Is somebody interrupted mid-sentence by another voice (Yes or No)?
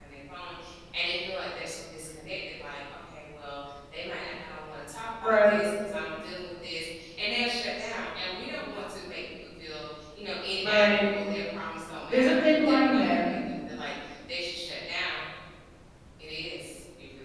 Yes